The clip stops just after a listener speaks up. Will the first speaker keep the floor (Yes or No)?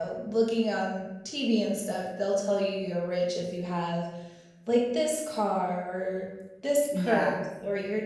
Yes